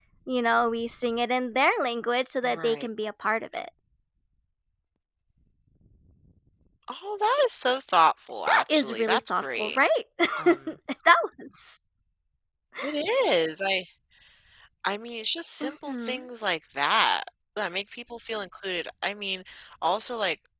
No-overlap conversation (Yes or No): No